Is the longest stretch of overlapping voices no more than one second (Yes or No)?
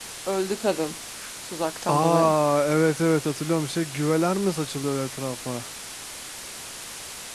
Yes